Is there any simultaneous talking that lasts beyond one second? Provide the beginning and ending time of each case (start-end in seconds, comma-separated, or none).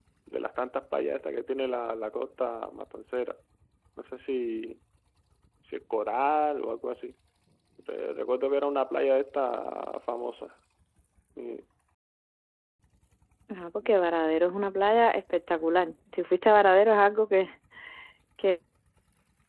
none